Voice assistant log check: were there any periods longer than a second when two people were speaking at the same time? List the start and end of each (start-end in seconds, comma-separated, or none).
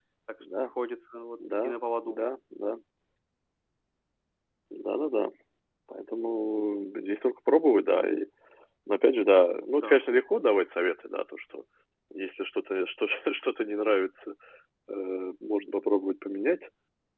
none